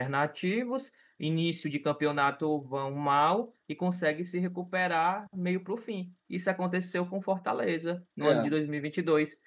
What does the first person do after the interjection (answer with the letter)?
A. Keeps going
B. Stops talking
A